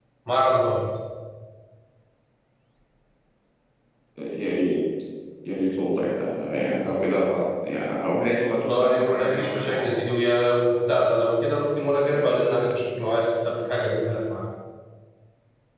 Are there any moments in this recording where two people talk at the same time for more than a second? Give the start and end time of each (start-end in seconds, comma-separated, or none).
8.7-10.0